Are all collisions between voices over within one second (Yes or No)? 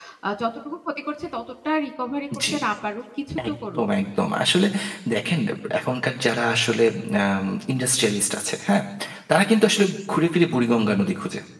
Yes